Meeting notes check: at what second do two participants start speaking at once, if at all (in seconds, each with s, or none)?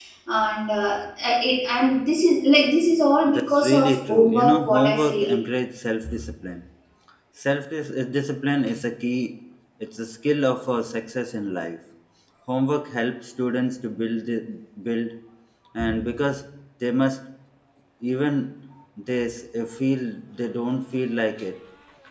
3.3 s